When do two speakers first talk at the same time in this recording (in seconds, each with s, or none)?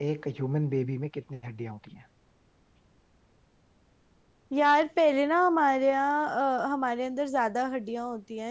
none